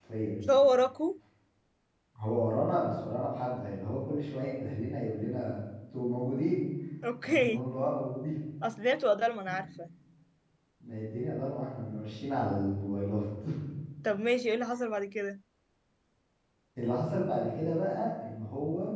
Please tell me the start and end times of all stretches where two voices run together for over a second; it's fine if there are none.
none

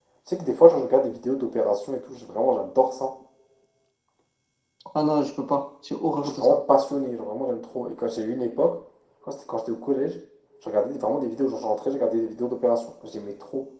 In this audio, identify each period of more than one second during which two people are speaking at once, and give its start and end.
none

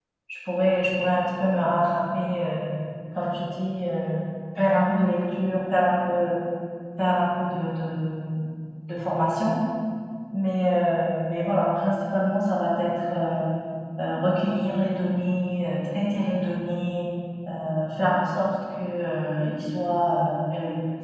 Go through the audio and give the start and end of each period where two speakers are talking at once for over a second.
none

